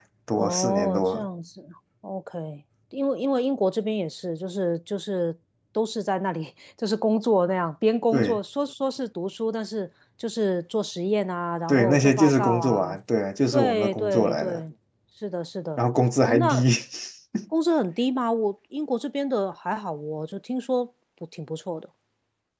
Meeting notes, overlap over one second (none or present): present